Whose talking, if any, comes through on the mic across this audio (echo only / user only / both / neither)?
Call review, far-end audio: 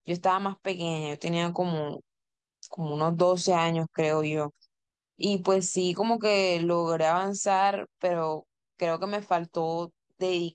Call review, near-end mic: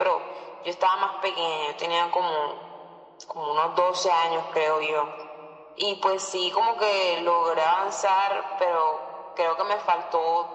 echo only